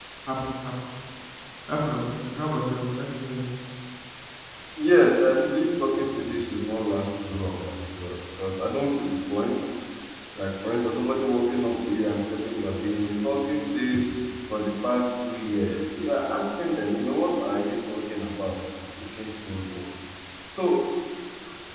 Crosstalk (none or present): none